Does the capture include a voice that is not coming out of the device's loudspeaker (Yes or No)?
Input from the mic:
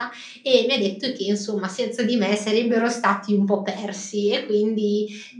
Yes